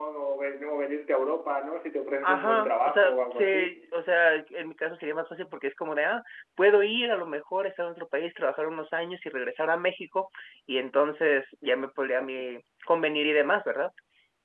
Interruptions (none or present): present